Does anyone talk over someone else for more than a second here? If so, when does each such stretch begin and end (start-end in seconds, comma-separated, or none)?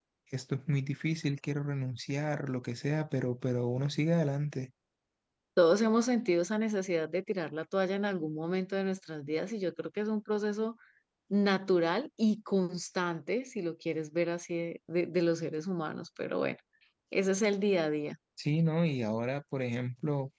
none